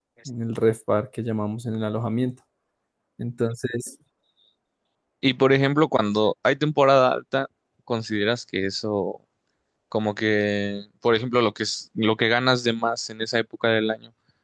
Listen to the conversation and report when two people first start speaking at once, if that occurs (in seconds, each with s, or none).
none